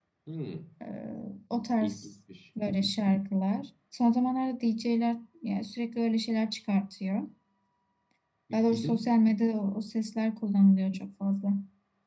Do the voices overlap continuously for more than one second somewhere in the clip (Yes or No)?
No